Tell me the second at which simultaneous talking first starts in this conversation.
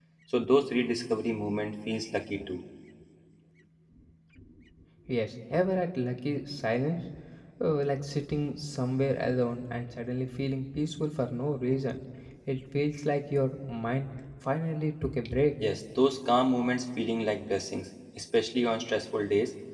none

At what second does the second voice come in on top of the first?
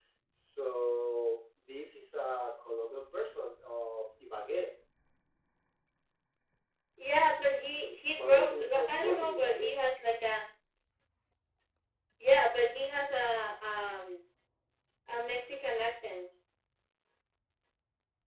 8 s

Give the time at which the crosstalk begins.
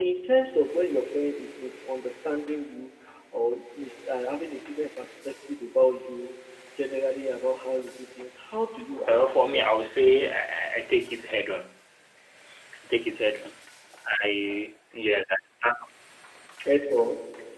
9 s

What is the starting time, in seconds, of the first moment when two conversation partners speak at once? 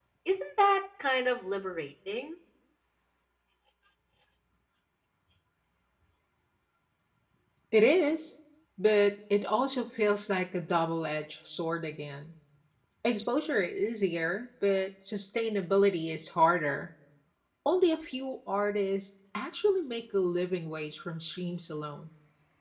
none

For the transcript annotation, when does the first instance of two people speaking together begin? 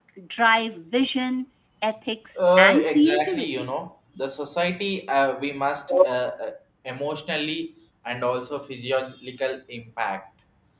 2 s

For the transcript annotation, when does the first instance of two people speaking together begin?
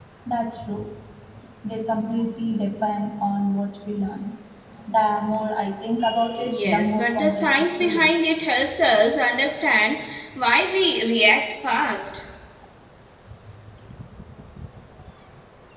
6 s

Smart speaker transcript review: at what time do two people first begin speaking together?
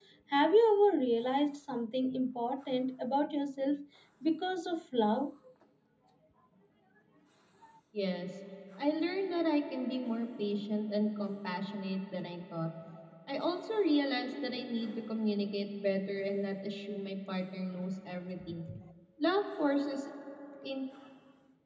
none

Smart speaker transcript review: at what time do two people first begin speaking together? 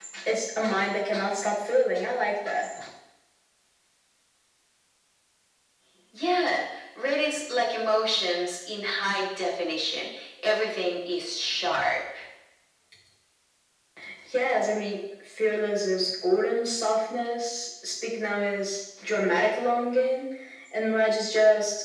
none

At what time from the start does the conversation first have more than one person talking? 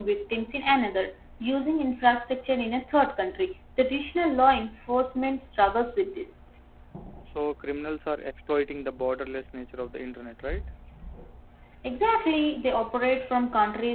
none

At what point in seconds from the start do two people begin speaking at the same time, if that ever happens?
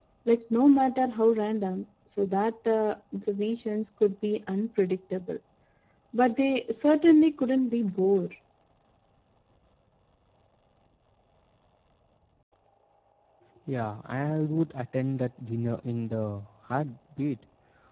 none

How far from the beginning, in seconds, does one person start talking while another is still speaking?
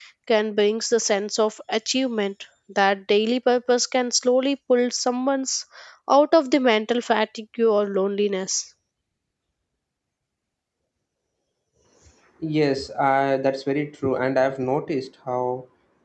none

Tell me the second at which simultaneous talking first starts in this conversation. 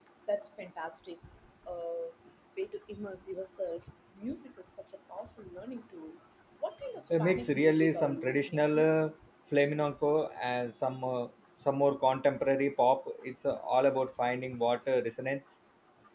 7 s

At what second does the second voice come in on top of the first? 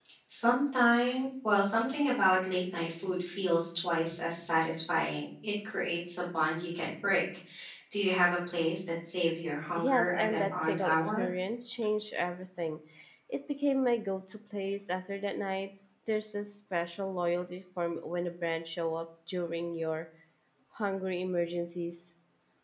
10 s

